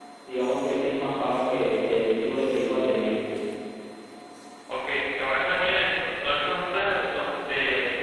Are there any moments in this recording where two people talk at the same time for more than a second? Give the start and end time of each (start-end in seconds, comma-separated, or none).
none